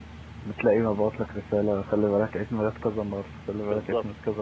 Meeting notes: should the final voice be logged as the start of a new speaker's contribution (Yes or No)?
Yes